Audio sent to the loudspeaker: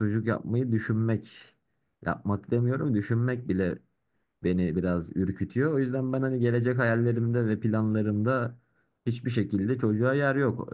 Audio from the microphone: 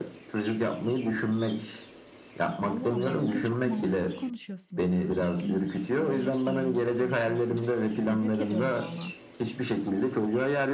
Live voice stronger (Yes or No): No